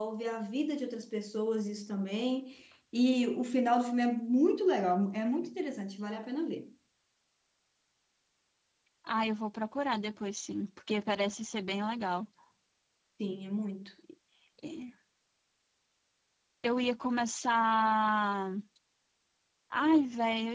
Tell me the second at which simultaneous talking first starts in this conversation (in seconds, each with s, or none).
none